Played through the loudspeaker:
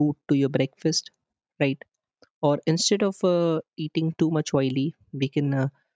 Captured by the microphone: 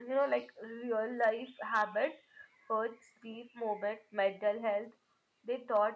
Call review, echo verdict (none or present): none